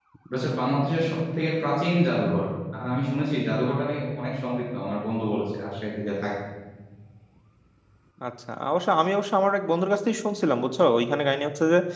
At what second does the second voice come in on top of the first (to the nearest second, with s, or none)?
none